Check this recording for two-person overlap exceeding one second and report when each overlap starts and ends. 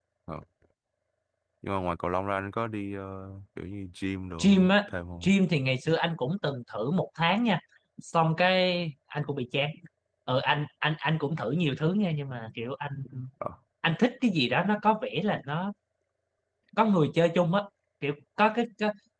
none

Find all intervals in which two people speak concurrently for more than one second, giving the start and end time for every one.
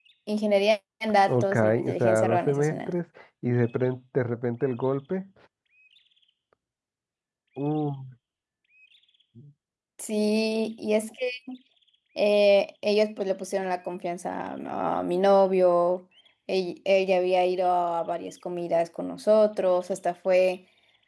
1.3-2.9

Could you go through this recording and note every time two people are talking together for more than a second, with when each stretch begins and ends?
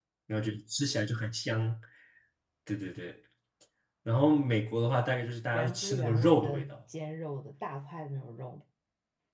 5.5-6.8

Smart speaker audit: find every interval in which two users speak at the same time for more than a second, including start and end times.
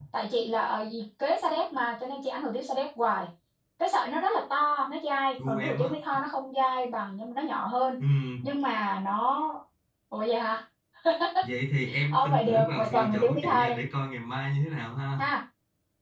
12.1-13.7

